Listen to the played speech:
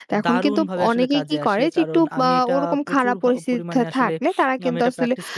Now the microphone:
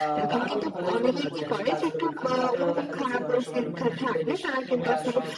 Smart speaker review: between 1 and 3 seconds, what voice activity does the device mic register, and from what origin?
both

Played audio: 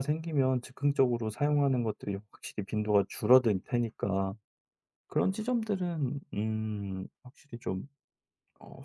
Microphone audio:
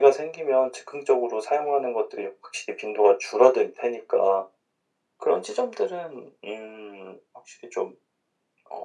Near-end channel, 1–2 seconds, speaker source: echo only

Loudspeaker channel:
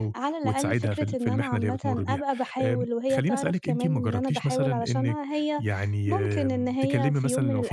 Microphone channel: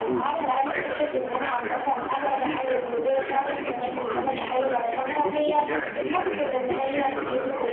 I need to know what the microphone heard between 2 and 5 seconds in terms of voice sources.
both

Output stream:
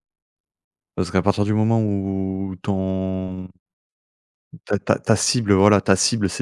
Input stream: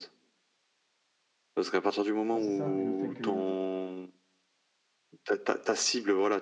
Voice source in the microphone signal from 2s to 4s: both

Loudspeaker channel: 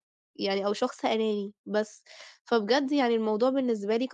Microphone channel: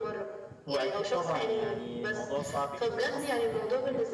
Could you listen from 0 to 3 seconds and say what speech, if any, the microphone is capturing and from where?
both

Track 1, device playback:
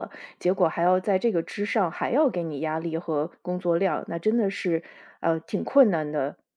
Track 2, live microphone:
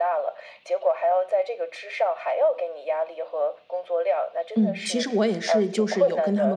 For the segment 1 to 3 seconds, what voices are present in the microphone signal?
echo only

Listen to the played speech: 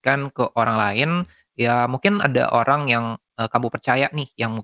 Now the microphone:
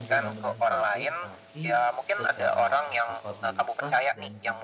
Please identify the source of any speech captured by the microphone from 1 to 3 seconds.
both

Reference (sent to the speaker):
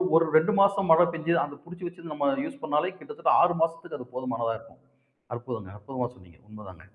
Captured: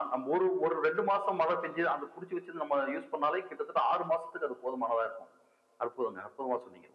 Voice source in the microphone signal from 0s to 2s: echo only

